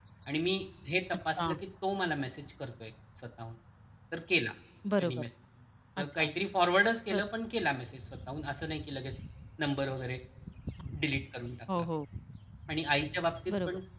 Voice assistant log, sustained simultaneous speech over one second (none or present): none